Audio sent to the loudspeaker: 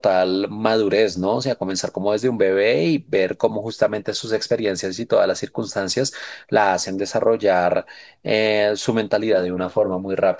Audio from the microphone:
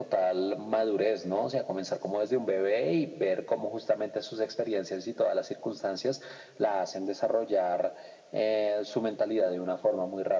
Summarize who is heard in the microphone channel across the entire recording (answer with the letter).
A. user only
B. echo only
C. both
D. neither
B